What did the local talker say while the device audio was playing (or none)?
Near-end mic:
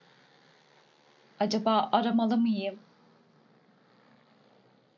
acaba aramalı mıyım,